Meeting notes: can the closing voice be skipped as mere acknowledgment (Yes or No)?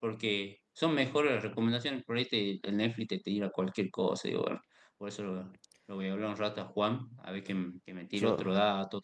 Yes